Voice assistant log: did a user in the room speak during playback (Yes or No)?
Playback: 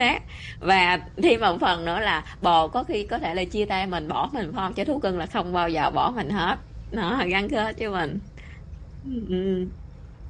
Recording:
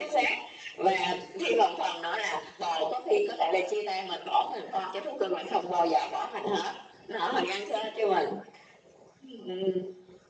No